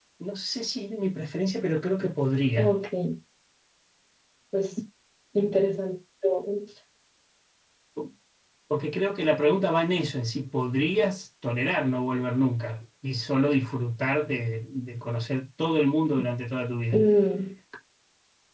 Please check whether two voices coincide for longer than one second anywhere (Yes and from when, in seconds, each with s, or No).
No